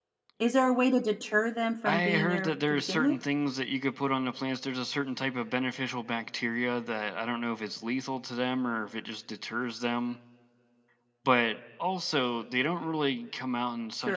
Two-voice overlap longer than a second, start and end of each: 1.9-3.2

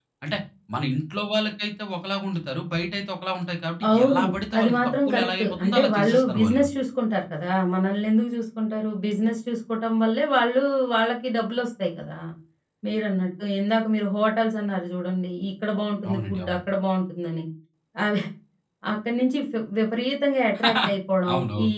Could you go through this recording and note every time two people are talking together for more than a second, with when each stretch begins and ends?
3.9-6.7

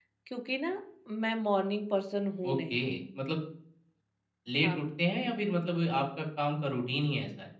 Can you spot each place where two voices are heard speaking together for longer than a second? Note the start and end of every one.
none

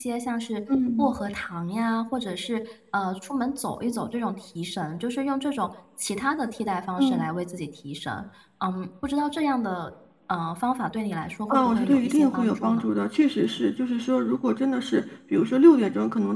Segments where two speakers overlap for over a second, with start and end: 11.5-12.9

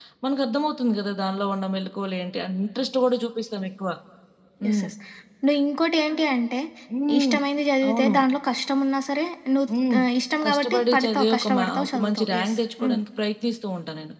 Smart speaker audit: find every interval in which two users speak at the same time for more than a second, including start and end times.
10.4-13.0

